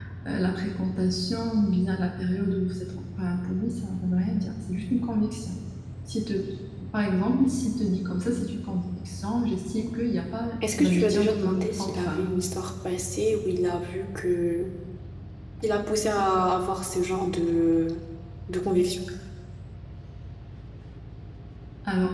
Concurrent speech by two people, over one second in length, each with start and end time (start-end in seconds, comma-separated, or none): 10.8-12.3